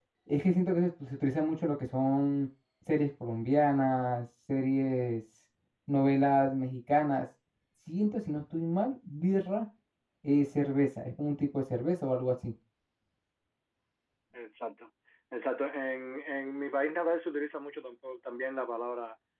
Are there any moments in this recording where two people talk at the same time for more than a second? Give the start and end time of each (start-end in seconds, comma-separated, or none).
none